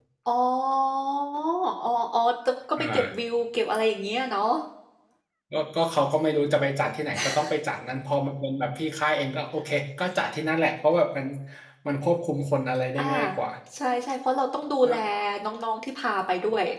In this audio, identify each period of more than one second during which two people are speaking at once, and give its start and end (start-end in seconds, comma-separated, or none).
none